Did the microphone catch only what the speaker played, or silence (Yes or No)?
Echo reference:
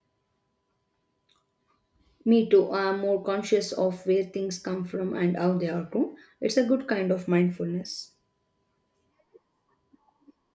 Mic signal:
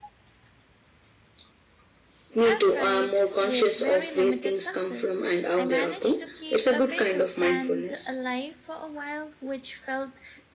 No